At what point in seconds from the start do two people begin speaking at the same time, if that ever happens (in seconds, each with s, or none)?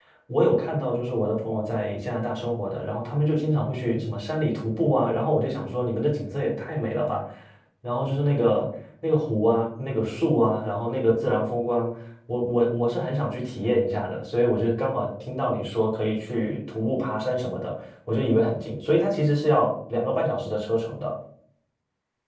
none